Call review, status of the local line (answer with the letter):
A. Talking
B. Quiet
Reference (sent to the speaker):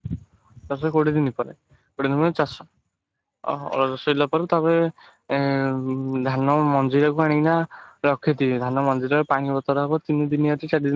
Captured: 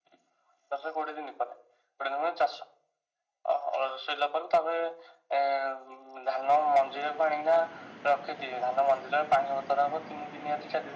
B